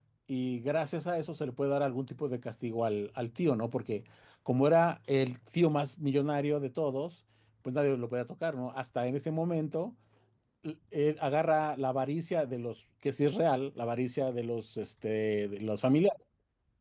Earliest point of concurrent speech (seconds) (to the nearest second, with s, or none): none